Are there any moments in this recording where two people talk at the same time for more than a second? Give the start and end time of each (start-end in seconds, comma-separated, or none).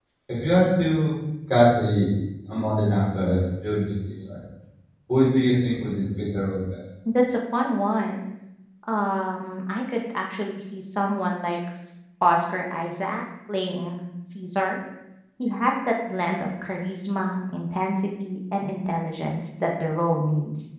none